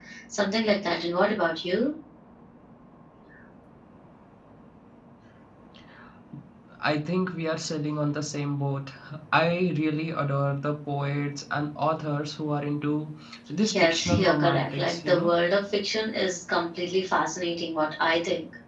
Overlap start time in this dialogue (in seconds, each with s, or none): 13.6 s